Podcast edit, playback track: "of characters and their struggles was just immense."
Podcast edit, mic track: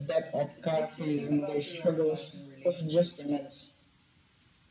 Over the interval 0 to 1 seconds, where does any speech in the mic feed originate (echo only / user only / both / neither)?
both